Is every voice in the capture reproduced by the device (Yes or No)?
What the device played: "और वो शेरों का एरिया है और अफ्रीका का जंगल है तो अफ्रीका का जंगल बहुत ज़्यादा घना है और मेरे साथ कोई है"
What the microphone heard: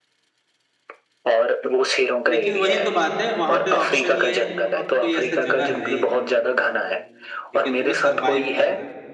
No